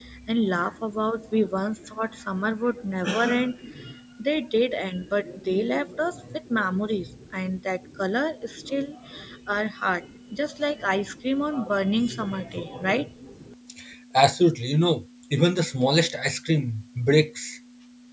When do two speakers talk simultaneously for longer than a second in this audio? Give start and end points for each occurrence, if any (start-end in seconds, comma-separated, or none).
none